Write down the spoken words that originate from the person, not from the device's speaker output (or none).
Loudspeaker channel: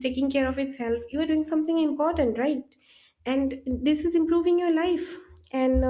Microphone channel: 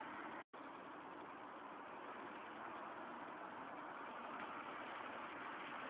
none